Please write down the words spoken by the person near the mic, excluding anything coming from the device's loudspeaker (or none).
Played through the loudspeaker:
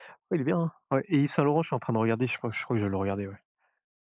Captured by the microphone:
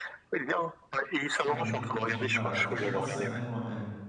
Pierre Niney? Putain, j'ai du mal à chaque fois, je sais pas si c'est un N ou un M.